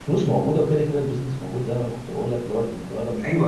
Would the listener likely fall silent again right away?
Yes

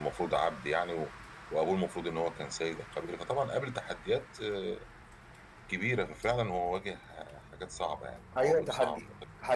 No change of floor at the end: No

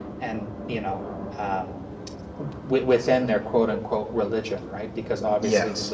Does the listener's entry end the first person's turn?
No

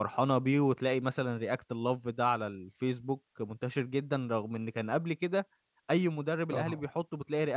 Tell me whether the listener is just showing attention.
Yes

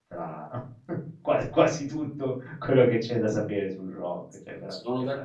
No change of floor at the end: No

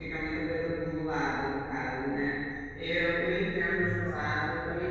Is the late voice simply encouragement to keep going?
Yes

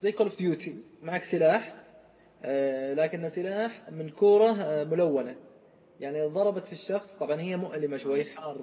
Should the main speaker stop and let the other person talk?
No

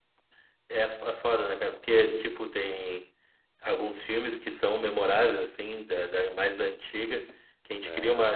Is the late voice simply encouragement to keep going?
Yes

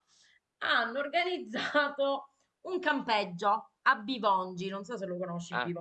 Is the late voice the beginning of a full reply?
Yes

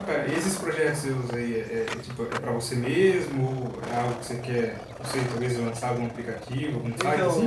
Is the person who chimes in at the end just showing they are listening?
No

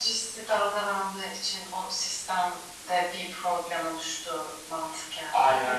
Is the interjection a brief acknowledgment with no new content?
No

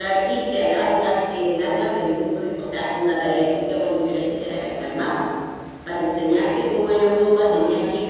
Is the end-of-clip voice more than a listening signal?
No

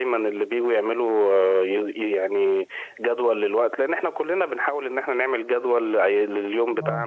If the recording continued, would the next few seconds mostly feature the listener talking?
No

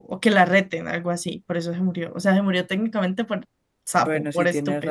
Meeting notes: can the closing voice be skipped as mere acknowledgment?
No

